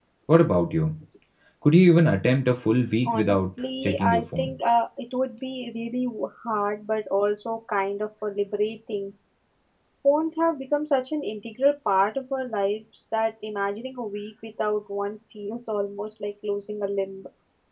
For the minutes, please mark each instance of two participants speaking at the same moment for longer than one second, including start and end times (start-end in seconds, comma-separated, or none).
3.0-4.5